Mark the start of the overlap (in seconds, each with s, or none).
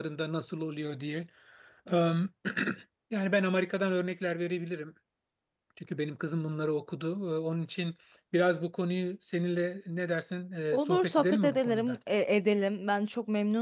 10.7 s